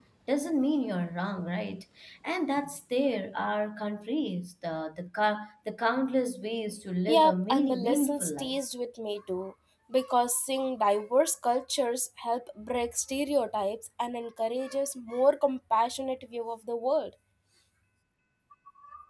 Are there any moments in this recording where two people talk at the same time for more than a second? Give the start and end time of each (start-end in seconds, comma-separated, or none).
7.1-8.6